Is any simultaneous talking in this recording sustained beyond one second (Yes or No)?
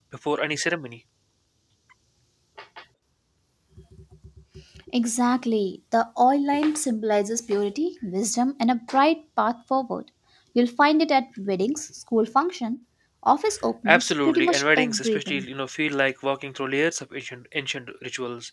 Yes